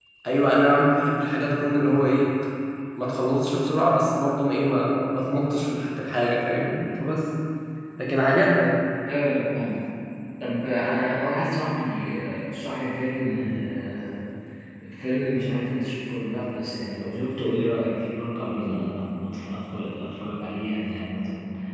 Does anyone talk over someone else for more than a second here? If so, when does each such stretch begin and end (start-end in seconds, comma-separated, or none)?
none